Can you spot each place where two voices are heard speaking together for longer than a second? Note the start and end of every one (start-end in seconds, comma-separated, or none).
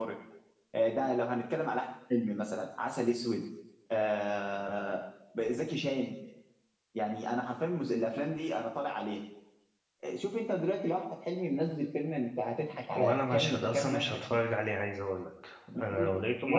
12.9-14.2